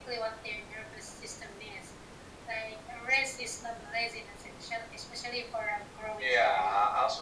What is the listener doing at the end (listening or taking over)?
taking over